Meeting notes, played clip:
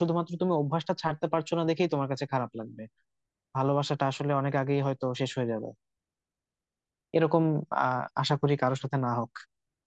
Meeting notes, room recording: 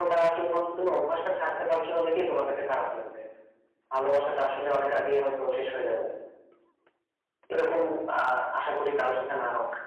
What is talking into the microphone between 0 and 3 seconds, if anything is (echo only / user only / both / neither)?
echo only